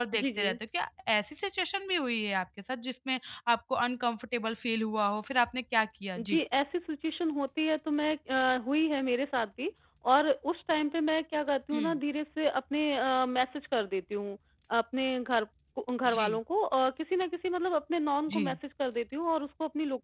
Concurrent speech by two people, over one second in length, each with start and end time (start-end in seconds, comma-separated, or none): none